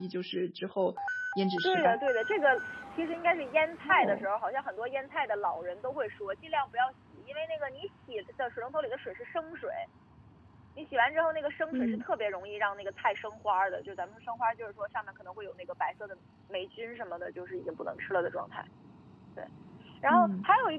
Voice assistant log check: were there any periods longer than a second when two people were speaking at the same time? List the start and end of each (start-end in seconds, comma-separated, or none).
none